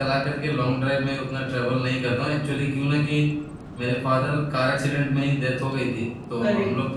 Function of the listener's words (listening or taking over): listening